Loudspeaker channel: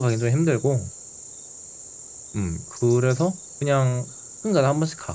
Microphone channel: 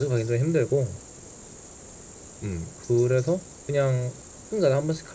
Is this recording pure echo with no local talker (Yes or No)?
Yes